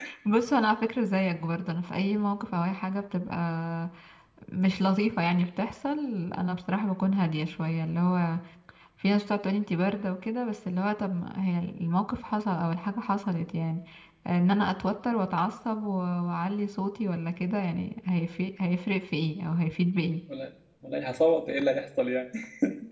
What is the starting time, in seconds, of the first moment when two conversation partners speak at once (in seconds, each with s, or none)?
none